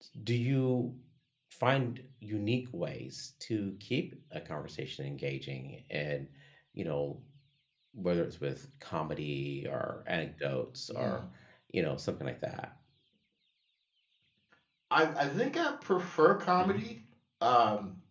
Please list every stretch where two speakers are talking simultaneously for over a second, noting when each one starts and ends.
none

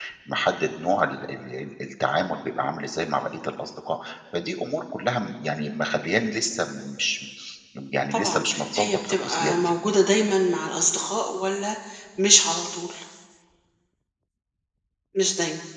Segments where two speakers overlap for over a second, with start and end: 8.1-9.7

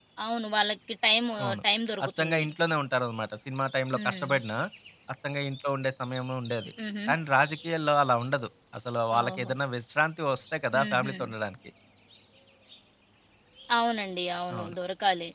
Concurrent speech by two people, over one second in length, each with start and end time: none

